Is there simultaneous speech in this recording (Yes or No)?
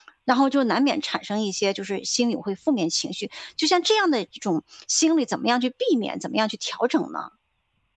No